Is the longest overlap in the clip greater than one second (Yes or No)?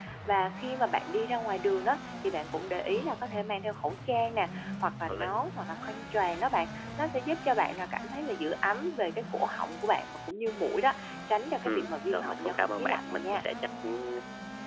Yes